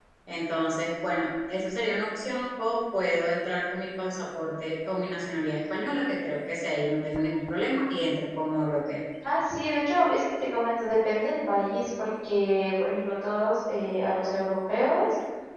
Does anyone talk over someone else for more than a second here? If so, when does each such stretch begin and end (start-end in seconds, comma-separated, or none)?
none